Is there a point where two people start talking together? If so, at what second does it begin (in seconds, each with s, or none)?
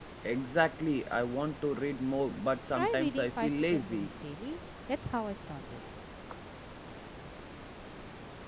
2.7 s